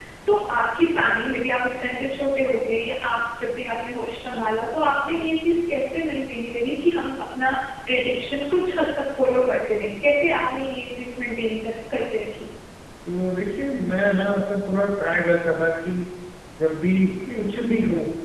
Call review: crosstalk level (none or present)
none